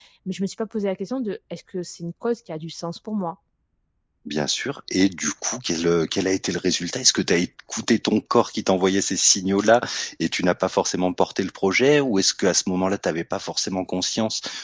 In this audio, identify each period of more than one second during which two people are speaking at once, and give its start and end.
none

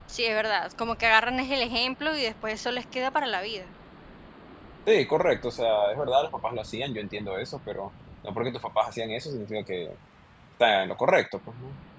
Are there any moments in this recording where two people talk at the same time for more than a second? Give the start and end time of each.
none

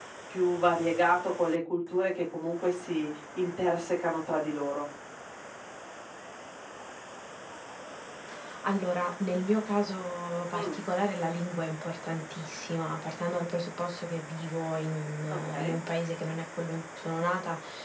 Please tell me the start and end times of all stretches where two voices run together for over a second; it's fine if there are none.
none

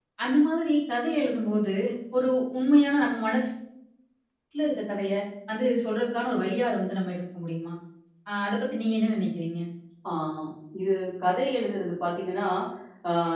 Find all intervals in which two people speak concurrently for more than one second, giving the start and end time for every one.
none

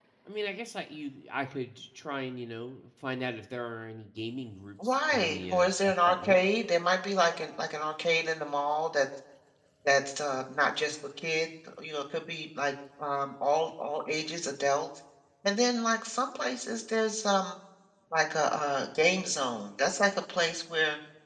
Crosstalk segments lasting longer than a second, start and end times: 4.9-6.4

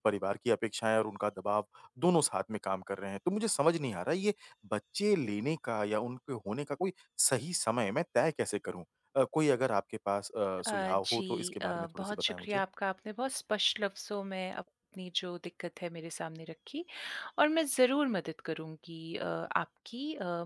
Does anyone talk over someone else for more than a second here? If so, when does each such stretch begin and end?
10.7-12.6

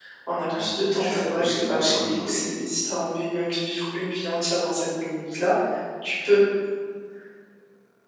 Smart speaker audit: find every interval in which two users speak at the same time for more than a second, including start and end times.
0.5-2.4

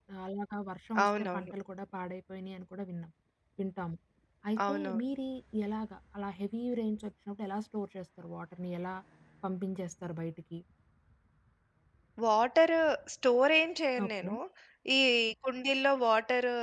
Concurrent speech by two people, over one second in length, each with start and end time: none

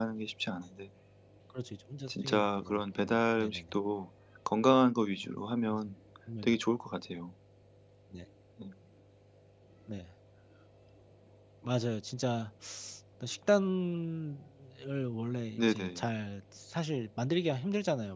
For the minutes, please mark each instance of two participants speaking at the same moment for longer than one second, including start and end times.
2.1-3.8

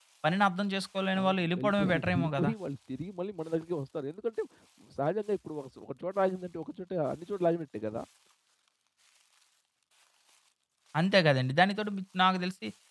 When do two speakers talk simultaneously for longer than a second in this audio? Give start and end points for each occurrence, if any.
1.2-2.5

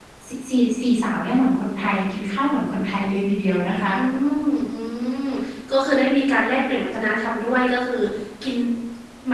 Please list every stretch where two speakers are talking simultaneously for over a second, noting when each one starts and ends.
none

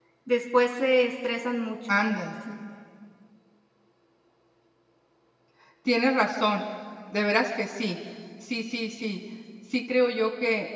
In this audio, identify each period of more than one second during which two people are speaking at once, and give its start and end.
none

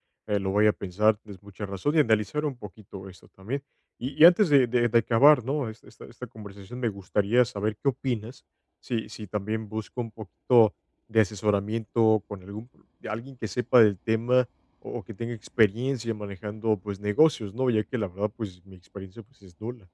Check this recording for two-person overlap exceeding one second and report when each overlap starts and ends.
none

